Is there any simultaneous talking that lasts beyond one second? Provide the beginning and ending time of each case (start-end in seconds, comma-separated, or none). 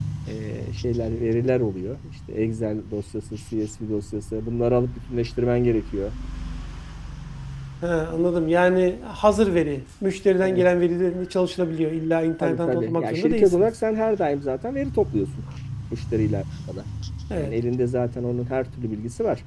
12.4-13.7